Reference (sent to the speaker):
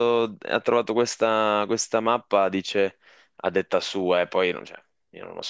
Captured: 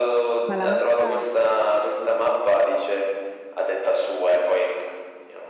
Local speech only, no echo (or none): Ma la mappa